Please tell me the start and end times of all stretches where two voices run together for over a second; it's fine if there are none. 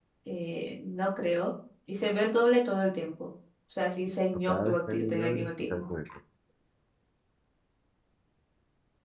4.5-5.8

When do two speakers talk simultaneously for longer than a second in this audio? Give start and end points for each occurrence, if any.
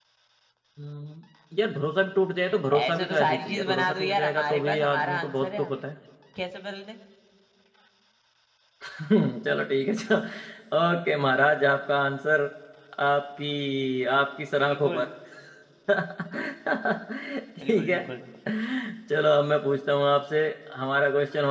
2.7-5.8

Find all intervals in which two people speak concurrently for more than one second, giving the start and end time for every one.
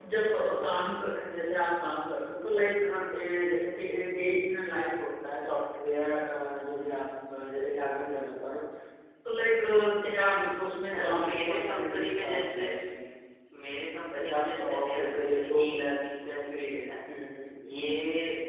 10.9-12.6, 14.1-15.6

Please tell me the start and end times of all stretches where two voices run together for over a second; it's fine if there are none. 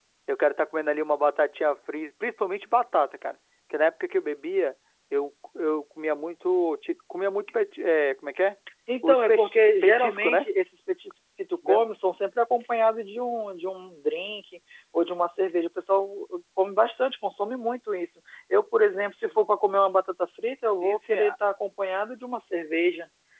9.0-10.5

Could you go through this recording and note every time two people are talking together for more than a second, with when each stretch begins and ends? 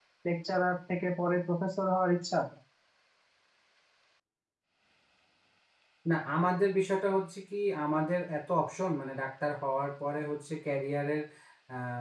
none

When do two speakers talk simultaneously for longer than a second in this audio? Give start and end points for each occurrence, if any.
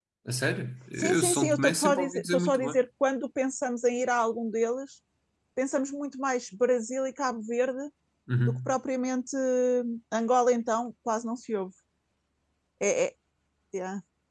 1.0-2.8

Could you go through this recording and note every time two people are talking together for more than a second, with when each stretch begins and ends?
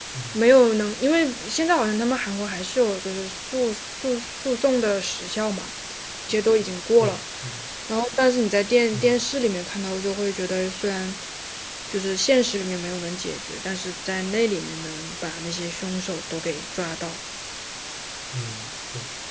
none

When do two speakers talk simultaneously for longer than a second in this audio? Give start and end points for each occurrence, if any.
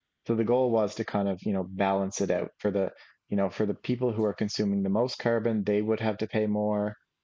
none

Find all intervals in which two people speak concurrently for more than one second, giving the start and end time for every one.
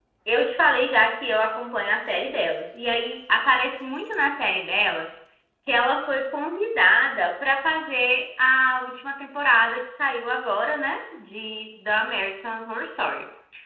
none

